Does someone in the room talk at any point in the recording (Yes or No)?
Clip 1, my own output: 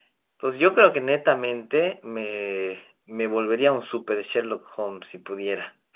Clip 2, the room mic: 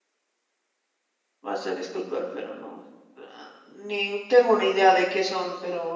Yes